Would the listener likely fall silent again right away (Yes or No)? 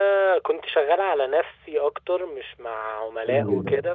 No